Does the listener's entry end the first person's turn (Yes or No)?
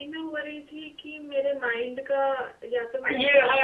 Yes